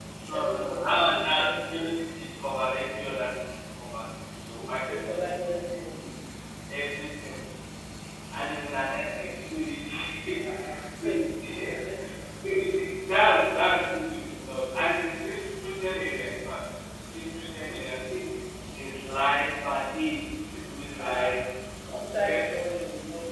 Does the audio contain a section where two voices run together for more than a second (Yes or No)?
Yes